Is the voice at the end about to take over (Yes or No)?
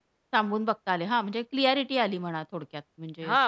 Yes